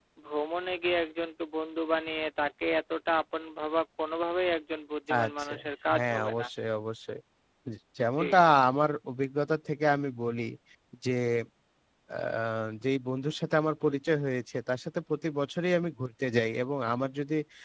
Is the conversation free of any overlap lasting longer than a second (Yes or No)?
Yes